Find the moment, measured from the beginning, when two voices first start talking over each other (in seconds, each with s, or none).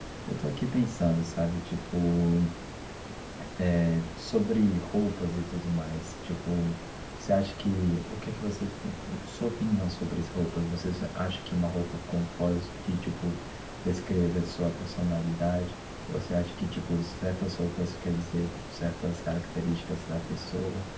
none